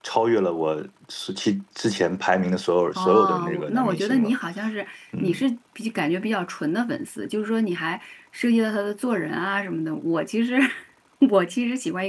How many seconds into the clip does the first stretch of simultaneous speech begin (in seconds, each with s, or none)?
3.0 s